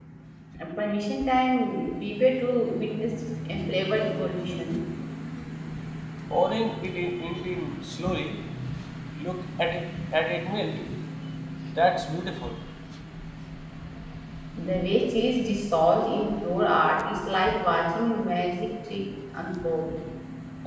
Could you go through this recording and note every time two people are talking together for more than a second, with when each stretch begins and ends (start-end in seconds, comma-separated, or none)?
none